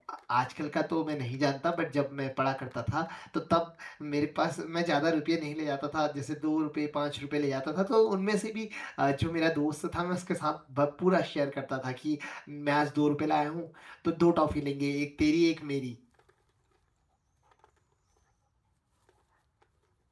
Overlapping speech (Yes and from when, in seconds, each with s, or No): No